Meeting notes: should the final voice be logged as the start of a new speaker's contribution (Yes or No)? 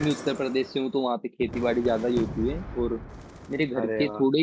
No